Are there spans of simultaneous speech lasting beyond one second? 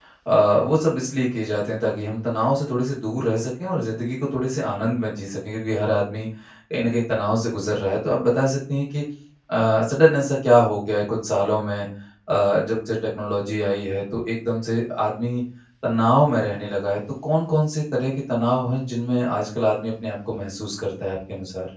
No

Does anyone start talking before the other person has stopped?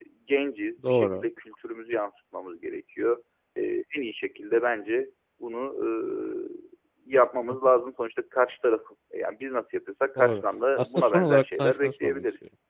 Yes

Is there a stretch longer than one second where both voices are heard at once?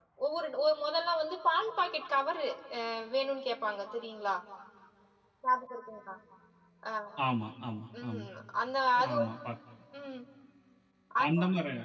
No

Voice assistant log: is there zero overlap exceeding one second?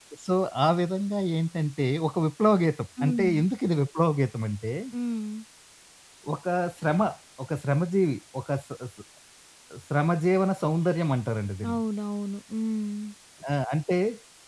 Yes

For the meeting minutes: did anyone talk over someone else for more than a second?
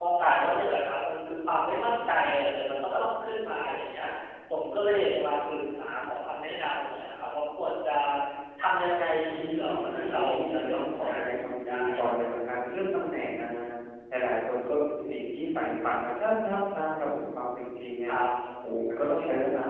Yes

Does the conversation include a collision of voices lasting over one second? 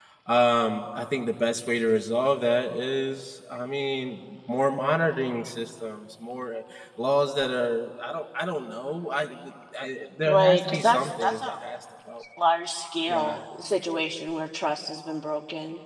Yes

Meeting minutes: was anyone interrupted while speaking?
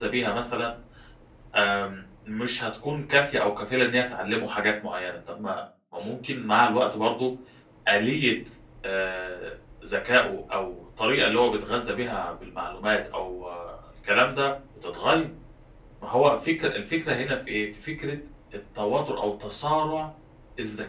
No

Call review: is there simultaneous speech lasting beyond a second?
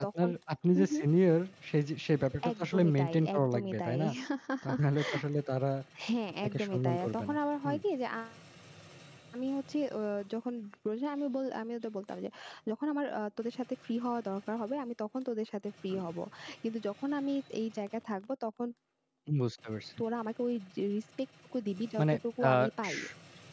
Yes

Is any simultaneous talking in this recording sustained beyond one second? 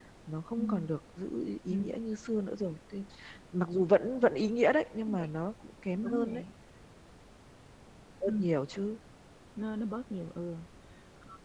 No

